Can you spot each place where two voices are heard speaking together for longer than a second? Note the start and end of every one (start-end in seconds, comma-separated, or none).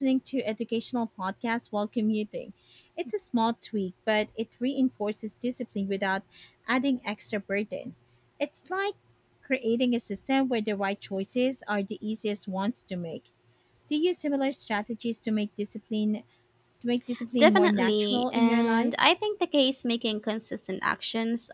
17.4-18.9